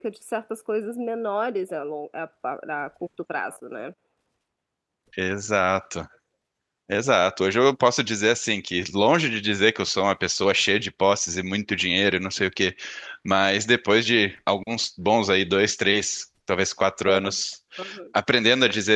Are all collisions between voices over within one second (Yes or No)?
Yes